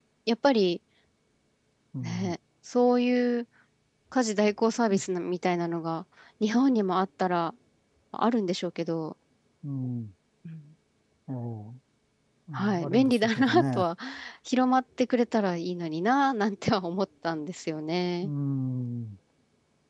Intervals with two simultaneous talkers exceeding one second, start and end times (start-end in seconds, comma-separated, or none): 12.6-13.8